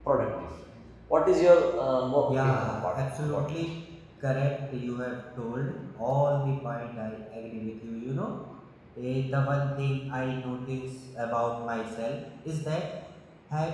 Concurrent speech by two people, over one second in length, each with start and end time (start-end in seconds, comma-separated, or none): 2.3-3.5